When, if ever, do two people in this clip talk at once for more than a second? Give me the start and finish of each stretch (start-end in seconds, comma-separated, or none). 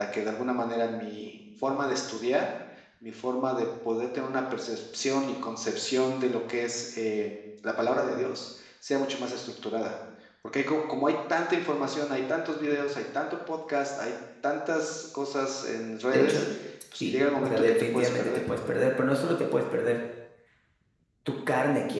17.0-18.4